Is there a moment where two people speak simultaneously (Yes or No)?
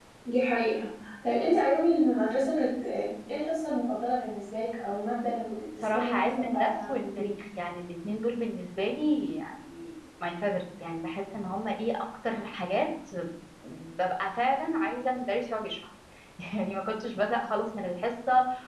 Yes